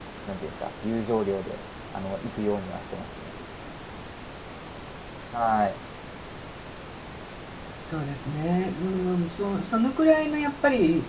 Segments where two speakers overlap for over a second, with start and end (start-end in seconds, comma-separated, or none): none